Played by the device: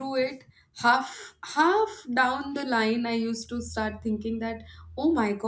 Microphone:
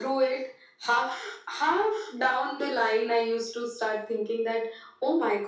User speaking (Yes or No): No